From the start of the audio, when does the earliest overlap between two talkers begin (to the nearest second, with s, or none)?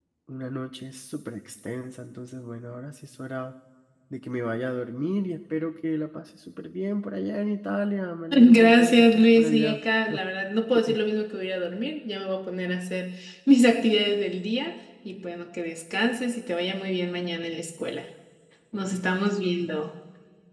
8 s